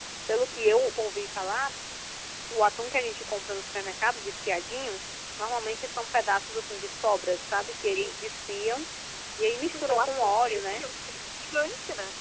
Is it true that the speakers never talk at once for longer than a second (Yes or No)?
No